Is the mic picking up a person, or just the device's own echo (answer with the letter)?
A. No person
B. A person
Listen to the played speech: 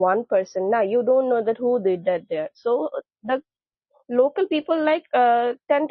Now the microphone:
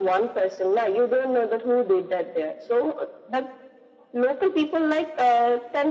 A